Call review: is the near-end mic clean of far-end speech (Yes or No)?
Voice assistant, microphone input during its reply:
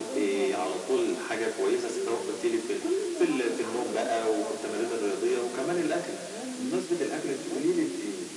No